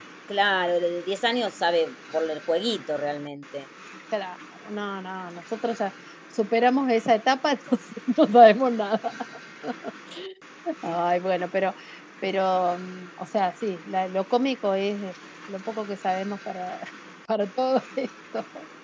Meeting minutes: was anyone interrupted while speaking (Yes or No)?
No